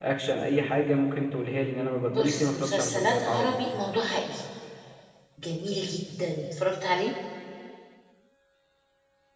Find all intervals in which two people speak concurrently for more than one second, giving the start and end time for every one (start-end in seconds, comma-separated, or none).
2.1-3.6